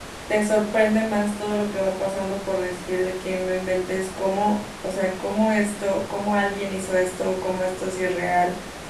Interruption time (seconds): none

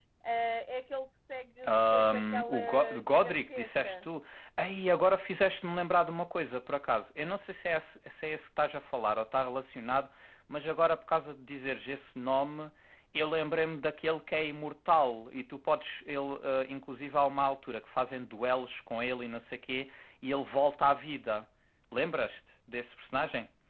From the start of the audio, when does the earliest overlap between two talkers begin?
1.6 s

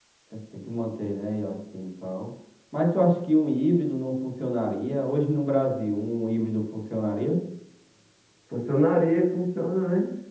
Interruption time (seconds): none

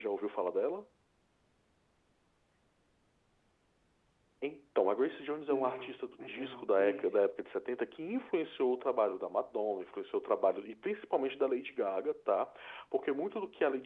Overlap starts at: 5.5 s

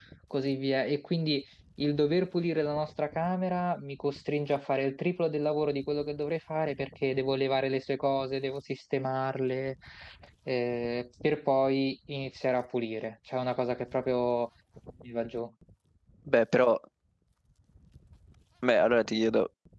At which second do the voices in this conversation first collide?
none

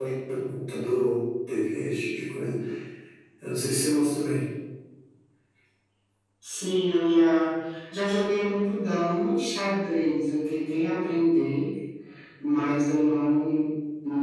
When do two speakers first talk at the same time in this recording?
none

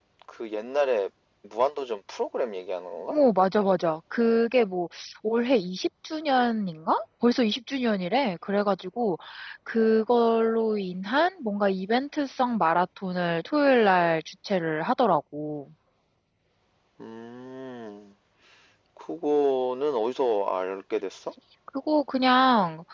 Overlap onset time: none

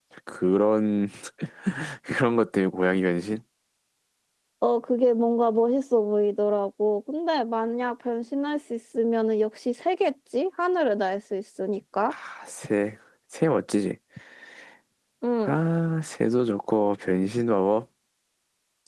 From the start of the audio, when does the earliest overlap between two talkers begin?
none

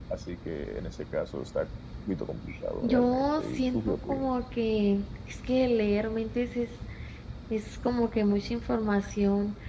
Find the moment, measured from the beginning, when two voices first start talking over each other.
2.8 s

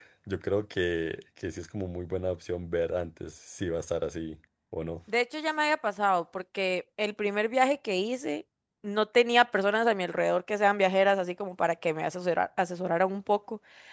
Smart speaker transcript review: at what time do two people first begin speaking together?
none

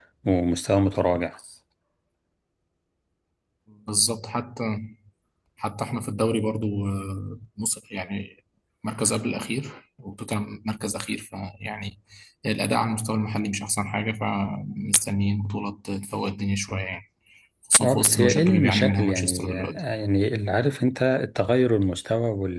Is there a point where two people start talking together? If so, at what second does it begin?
17.8 s

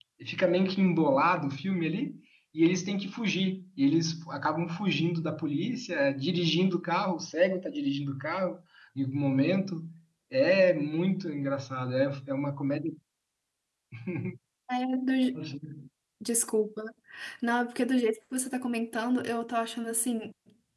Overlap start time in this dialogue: none

